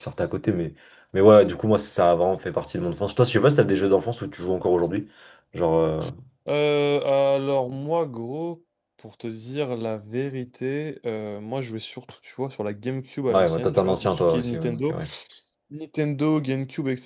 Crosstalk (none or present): present